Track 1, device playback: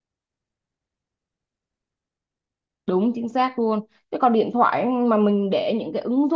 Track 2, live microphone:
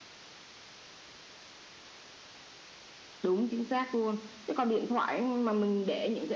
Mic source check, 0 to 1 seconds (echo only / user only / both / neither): neither